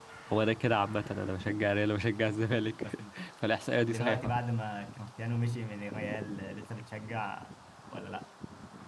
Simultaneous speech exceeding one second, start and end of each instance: none

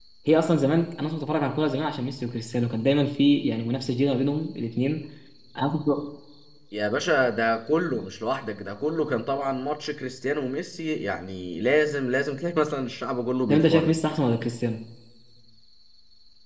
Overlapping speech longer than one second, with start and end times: none

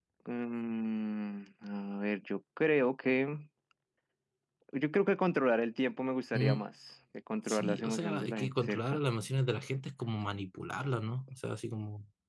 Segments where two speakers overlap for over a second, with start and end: 7.5-9.0

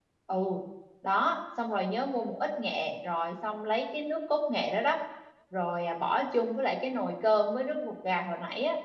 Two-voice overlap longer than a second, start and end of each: none

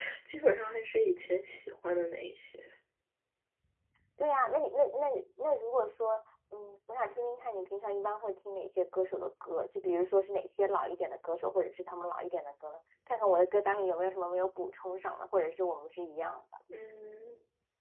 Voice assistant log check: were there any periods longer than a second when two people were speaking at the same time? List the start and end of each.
none

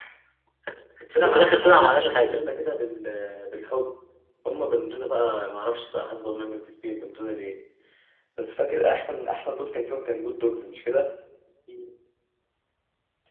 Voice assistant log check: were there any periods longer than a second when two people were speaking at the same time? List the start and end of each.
1.2-2.4

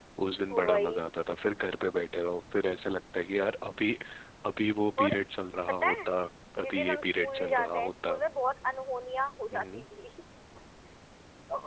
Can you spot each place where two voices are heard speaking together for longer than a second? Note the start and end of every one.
6.7-8.2

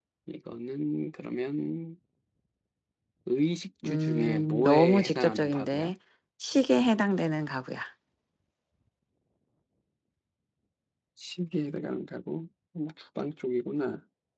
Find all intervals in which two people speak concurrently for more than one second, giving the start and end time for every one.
3.8-5.9

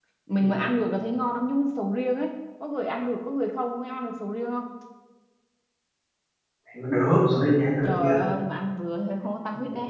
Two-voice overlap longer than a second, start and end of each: none

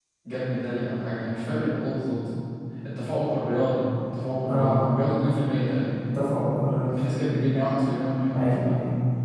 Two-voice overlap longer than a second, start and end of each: none

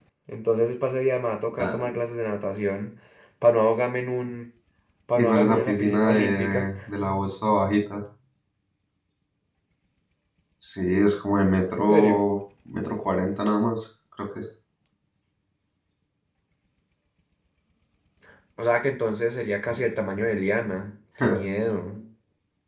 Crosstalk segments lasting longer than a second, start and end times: 5.2-6.7

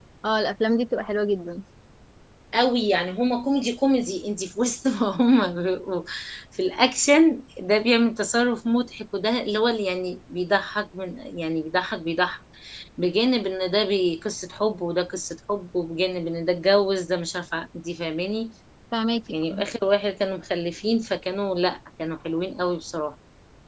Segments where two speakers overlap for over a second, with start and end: none

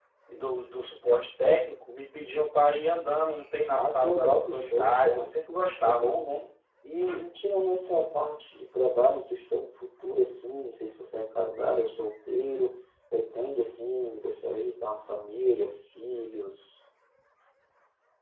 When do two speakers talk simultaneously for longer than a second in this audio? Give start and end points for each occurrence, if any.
3.7-5.3

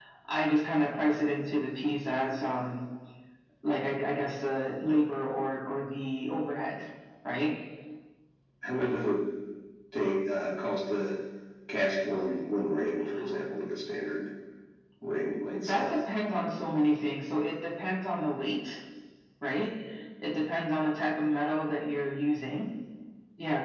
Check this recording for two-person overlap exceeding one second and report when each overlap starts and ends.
none

